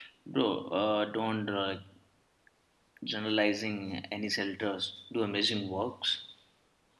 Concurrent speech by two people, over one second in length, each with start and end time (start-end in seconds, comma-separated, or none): none